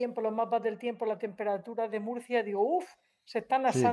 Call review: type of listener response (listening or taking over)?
taking over